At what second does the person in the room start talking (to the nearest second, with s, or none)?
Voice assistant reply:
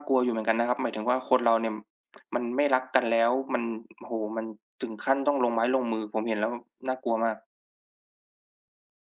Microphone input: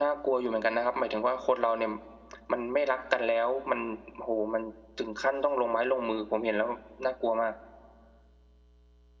none